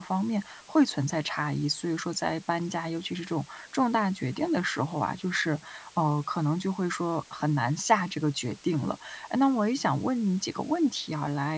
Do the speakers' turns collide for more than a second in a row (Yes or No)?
No